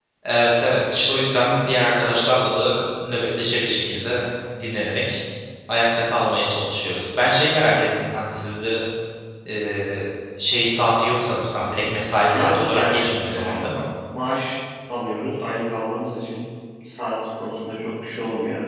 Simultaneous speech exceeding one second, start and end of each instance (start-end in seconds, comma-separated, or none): 12.3-13.6